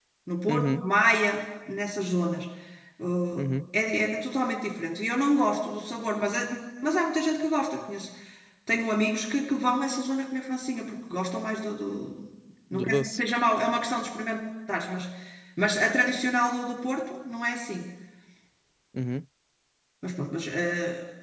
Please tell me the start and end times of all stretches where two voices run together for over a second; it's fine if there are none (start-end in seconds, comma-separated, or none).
none